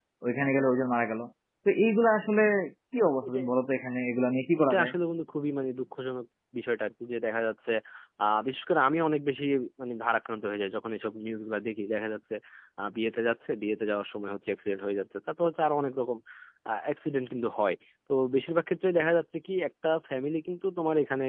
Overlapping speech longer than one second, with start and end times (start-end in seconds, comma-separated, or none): none